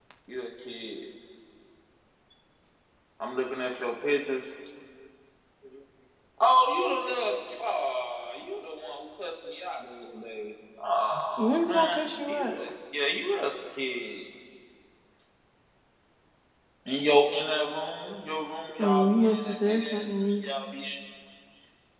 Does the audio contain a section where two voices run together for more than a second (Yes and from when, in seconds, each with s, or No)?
Yes, from 11.4 s